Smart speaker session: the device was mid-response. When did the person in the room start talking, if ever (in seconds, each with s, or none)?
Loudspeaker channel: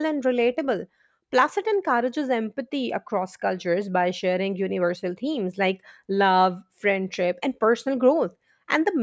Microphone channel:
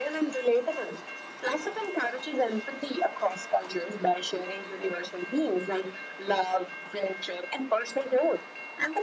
none